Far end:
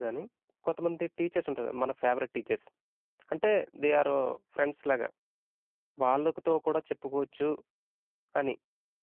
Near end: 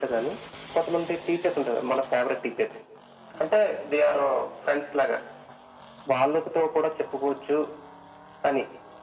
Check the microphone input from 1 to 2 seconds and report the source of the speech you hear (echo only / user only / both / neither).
echo only